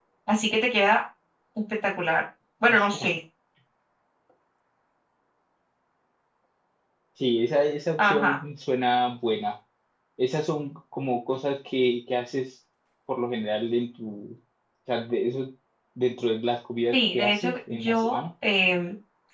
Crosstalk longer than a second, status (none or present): present